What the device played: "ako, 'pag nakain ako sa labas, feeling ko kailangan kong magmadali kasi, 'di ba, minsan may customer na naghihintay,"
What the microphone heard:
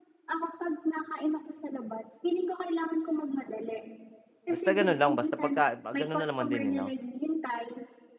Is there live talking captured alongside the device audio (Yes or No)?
Yes